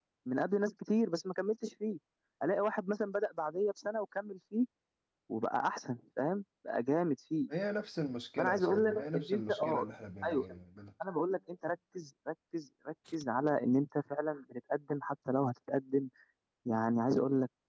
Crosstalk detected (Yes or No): Yes